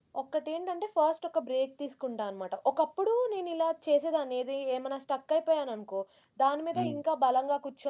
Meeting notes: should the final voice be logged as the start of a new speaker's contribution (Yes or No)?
No